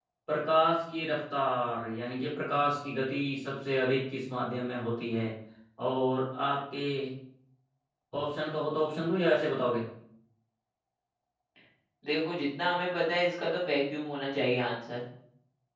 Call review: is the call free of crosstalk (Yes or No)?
Yes